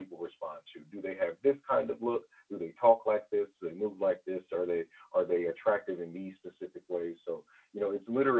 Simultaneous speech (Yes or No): No